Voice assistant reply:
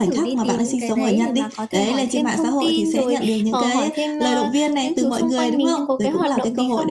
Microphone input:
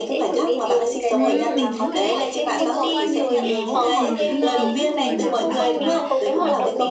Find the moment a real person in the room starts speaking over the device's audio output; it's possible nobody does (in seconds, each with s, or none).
1.1 s